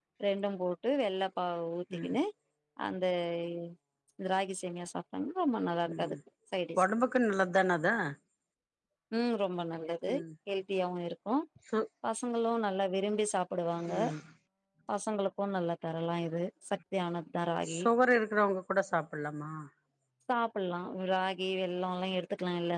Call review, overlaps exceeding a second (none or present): none